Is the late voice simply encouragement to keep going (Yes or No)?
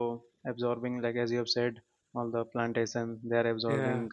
Yes